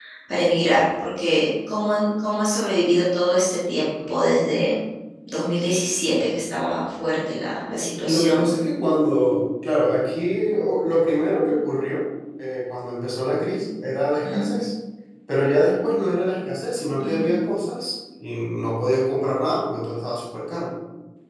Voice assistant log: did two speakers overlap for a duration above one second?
No

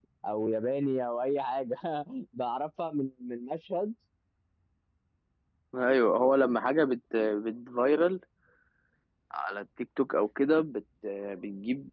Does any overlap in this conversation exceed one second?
No

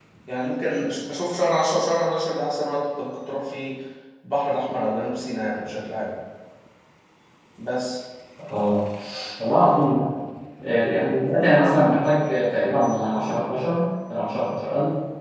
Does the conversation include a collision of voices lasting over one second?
No

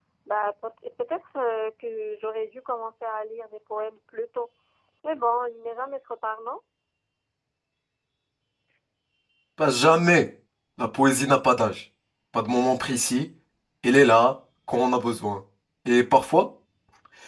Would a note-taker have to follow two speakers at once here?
No

